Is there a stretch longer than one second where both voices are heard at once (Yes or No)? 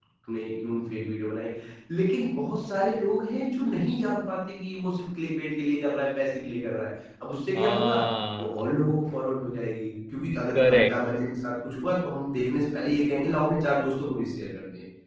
No